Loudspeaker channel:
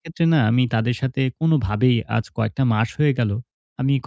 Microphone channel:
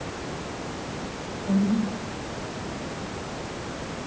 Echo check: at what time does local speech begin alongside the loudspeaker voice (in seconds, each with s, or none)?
1.4 s